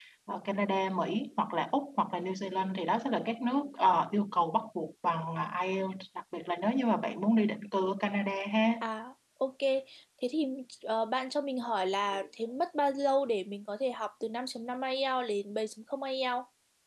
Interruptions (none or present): none